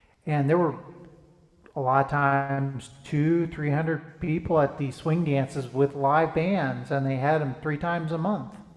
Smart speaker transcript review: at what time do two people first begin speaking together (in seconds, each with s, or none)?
none